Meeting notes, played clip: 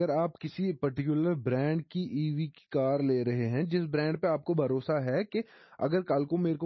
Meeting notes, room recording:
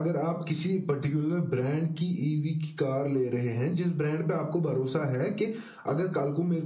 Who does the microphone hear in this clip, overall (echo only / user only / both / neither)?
echo only